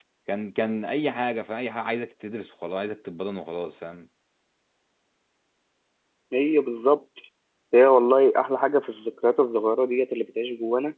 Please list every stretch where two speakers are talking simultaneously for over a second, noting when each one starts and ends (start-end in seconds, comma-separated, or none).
none